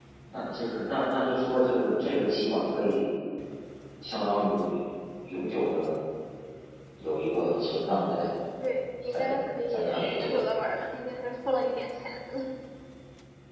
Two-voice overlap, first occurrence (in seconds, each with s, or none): 9.1 s